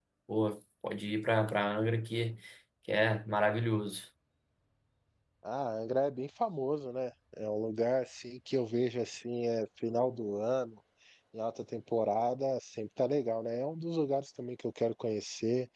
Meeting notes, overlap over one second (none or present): none